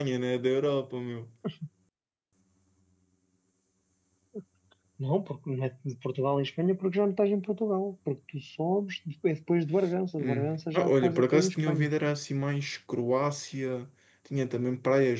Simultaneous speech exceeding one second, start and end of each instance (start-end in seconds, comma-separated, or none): 10.2-11.9